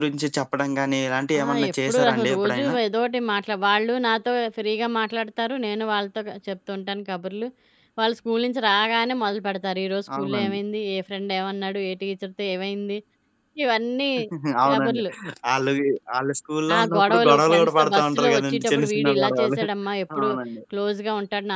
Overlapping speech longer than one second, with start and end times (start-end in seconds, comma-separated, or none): 1.4-2.7, 16.7-19.6